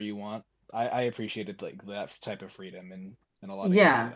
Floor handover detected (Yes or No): Yes